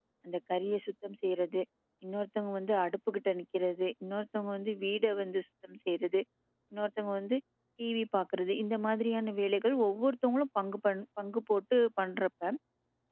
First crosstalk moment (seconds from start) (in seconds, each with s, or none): none